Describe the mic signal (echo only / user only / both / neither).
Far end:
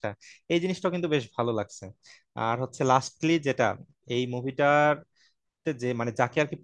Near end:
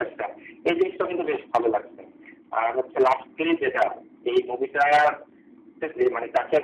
echo only